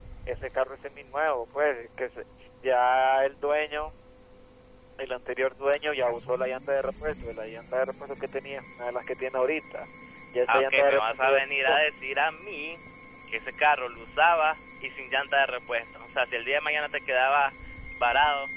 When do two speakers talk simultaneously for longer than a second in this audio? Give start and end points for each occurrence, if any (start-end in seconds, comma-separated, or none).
10.5-11.8